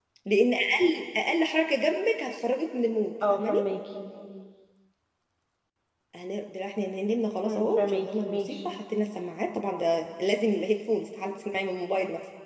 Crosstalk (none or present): present